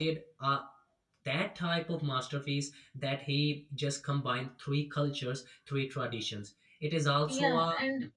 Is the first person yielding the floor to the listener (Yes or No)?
Yes